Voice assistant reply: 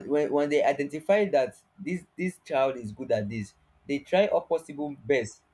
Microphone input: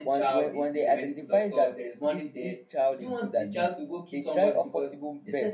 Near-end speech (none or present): present